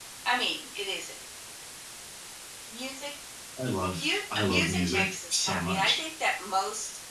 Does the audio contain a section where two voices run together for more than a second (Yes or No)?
Yes